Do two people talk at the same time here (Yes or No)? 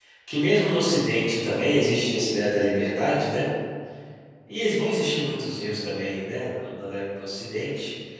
No